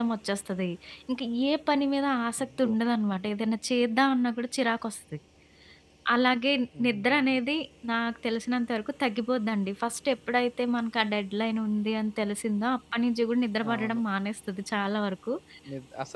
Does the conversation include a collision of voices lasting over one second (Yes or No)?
No